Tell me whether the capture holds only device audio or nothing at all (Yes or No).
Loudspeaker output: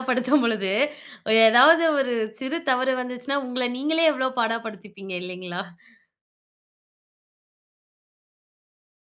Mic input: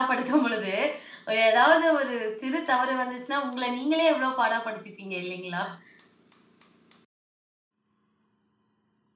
Yes